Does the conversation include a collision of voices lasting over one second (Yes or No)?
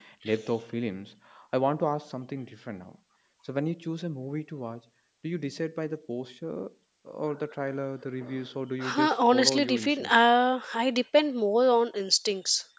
Yes